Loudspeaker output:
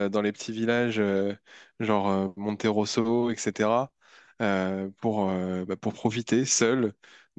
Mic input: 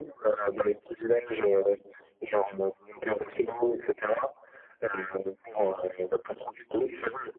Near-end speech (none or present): none